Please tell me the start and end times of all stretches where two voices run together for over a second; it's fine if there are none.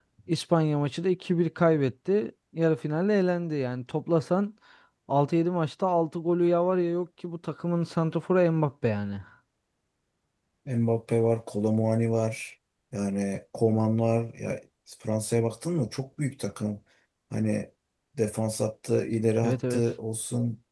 none

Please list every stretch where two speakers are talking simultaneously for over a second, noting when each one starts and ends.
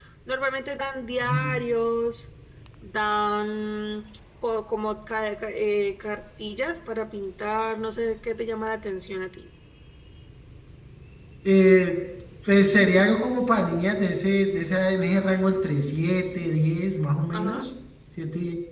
none

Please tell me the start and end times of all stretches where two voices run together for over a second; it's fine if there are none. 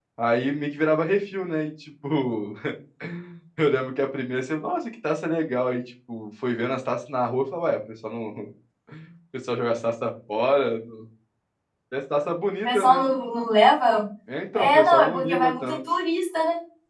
14.6-15.8

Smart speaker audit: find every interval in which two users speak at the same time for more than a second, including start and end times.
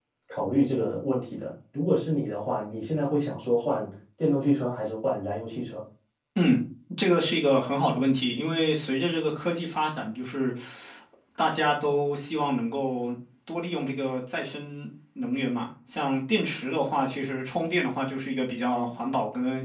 none

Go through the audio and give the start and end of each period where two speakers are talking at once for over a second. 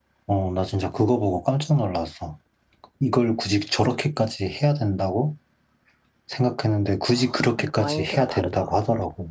7.2-8.7

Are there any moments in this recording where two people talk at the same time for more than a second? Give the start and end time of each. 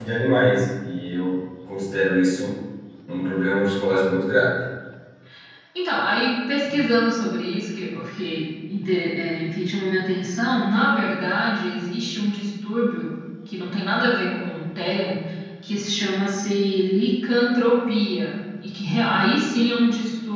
none

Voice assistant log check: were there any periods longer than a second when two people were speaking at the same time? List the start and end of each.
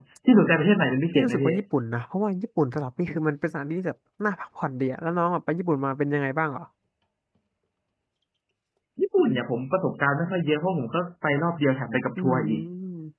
none

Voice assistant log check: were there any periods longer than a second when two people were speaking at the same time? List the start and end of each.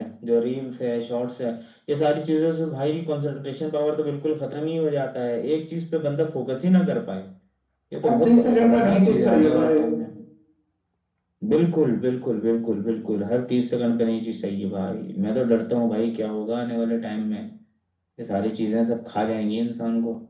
8.1-9.8

